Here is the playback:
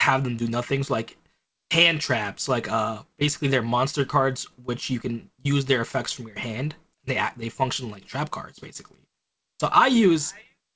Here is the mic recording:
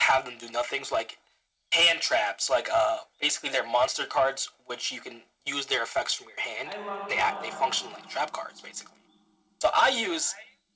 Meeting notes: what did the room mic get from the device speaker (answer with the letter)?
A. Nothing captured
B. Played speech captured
B